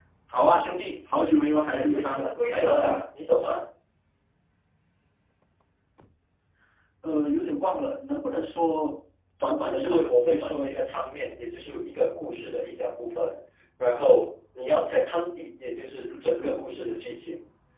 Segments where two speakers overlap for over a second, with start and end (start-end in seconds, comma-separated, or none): 1.7-3.0, 9.6-10.8